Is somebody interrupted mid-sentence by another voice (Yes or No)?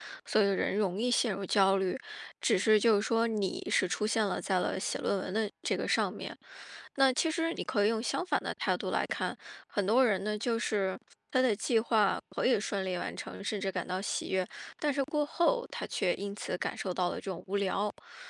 No